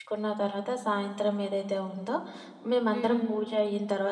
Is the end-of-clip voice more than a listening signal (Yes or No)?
No